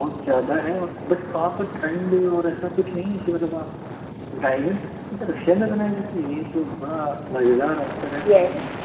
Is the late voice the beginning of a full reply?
Yes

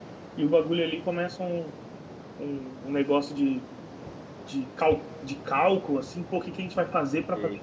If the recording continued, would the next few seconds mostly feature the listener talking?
No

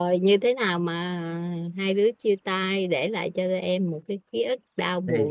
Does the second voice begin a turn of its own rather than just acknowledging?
Yes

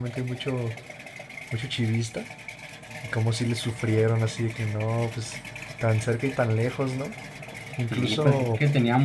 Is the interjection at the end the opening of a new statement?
Yes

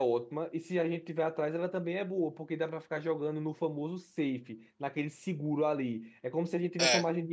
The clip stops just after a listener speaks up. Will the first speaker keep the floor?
Yes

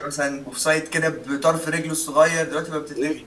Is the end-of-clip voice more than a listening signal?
Yes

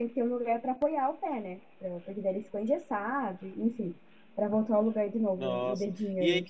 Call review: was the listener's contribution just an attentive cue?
No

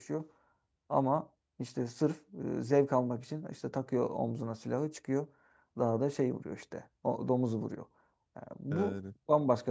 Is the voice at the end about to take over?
No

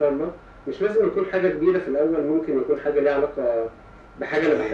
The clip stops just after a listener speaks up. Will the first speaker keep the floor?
Yes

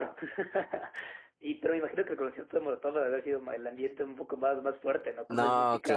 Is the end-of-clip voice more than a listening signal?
Yes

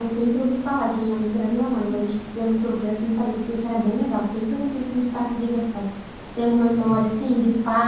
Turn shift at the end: No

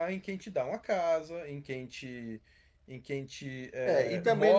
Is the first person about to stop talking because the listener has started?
Yes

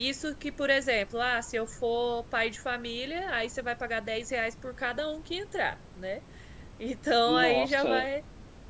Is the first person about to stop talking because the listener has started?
No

